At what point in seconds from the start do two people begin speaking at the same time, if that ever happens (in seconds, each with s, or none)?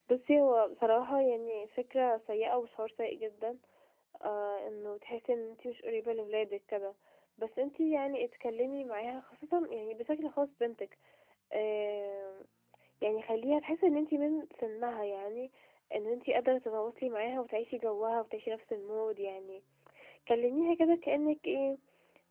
none